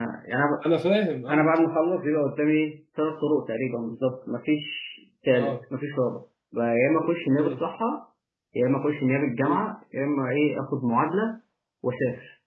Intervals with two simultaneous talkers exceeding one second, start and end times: none

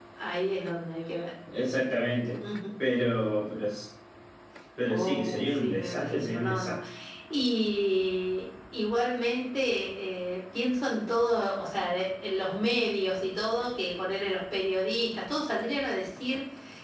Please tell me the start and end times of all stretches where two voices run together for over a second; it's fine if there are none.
4.9-6.8

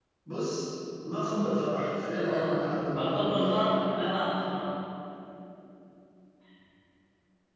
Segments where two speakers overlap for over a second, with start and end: 2.1-3.7

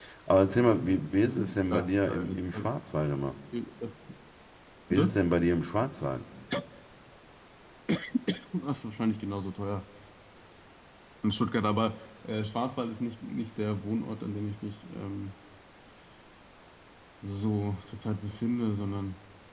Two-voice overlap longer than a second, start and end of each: 1.2-2.7

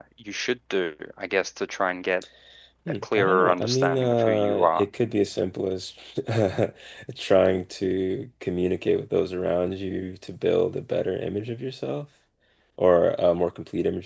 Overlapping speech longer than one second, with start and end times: 3.0-4.8

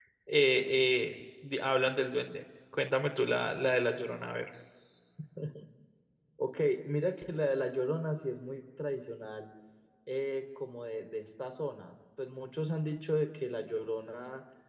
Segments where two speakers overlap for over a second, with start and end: none

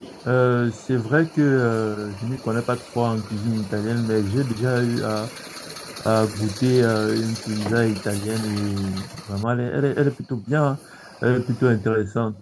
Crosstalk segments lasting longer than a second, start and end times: none

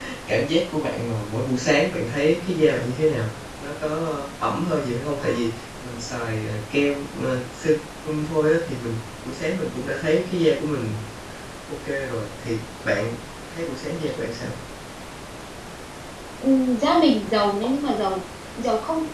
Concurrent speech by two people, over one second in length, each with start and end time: none

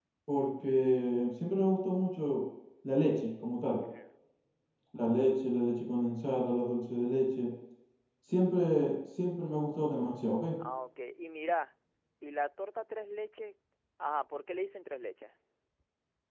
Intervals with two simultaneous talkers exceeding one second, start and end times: none

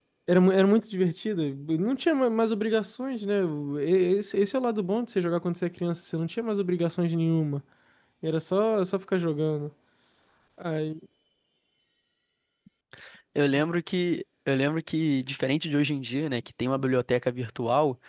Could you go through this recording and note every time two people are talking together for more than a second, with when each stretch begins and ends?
none

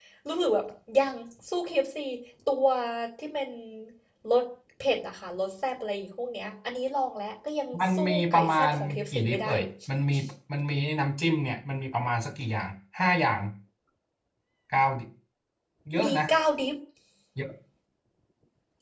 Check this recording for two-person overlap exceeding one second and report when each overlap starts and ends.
7.9-9.5

